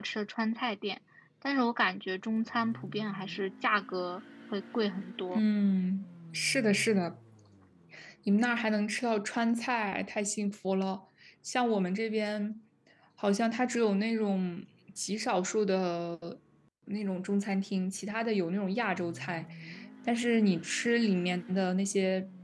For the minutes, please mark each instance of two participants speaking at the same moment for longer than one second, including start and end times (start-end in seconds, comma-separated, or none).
none